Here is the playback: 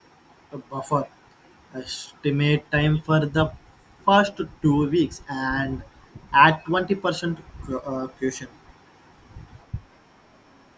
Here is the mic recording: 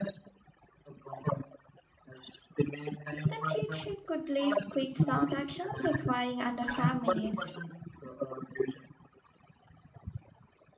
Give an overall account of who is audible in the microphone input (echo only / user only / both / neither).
both